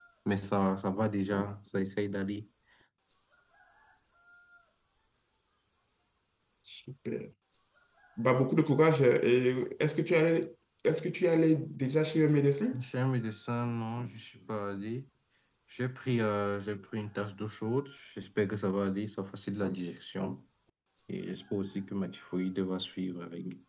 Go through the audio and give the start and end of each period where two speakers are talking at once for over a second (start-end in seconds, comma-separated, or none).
none